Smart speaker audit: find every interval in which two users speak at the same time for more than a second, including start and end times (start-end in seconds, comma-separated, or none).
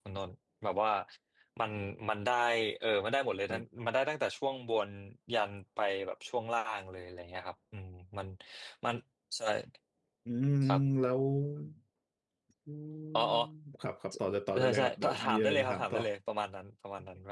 14.6-16.0